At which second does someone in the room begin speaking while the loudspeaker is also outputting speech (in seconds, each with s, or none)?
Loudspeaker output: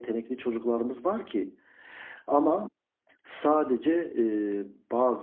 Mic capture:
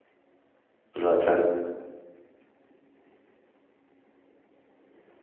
0.9 s